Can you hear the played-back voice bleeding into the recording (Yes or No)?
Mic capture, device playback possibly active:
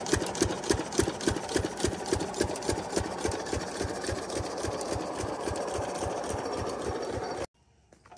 No